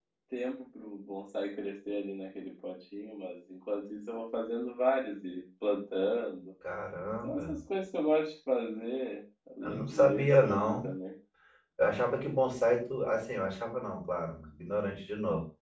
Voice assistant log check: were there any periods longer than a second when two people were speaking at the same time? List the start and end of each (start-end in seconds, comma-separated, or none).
9.6-10.9